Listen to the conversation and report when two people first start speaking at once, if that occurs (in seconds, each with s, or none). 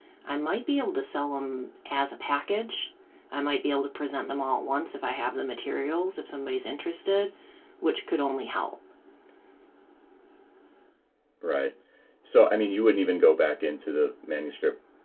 none